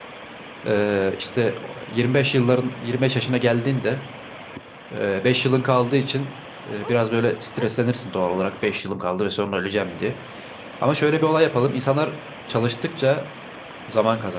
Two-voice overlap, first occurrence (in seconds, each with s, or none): none